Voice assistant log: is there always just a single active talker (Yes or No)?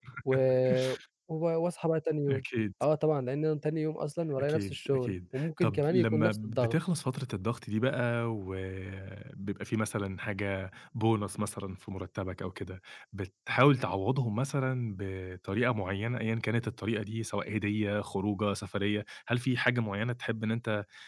No